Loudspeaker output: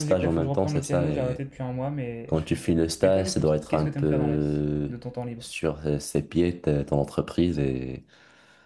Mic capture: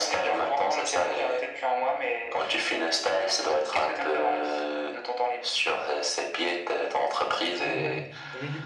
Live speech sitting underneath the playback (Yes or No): Yes